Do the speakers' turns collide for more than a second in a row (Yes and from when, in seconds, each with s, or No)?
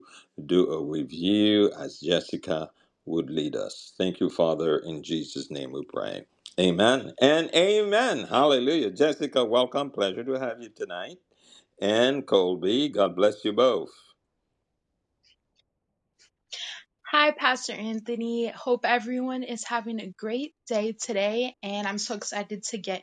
No